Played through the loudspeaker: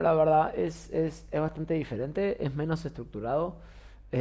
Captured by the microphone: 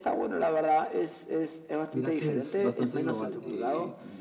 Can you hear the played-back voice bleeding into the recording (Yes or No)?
Yes